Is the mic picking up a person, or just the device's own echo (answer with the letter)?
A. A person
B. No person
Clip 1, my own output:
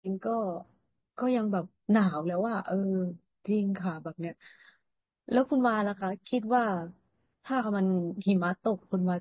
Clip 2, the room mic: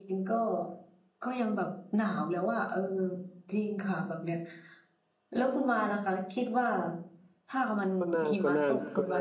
A